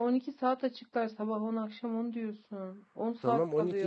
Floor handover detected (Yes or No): Yes